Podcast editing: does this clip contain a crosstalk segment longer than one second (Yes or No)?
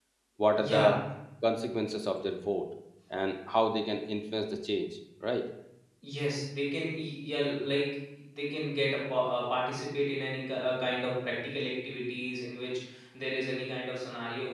No